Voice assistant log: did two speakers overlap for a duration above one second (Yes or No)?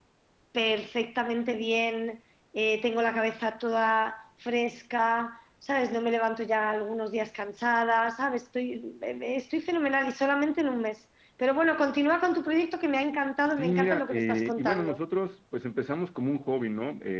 Yes